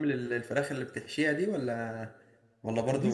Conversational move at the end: taking over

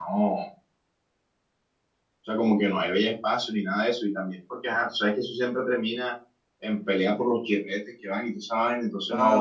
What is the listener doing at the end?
taking over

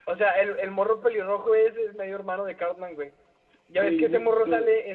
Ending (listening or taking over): listening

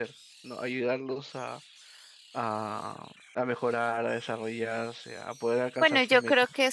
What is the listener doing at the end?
taking over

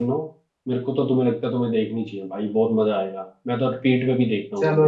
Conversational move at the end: taking over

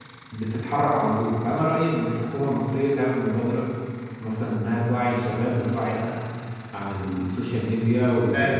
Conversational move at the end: taking over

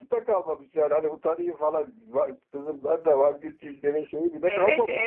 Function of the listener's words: taking over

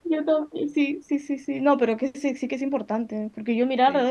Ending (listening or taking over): listening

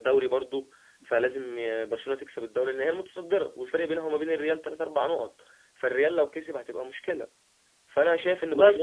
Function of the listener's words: listening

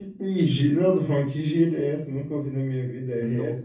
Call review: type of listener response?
taking over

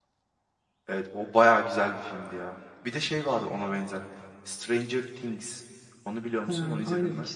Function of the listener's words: taking over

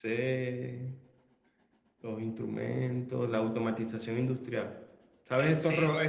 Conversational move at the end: listening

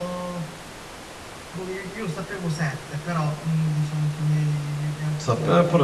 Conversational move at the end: taking over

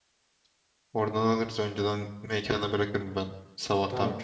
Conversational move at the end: taking over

